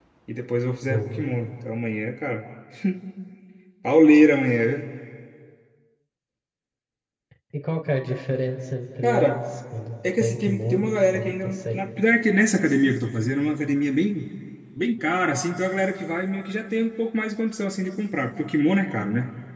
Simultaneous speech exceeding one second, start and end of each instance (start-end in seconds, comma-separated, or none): 10.2-11.8